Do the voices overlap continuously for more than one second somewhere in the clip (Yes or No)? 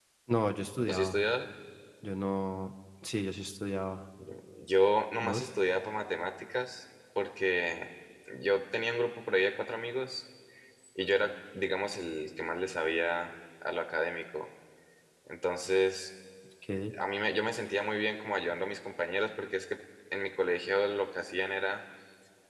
No